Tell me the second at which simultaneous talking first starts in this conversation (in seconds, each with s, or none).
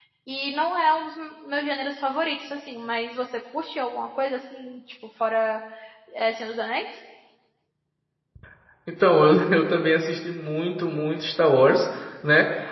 none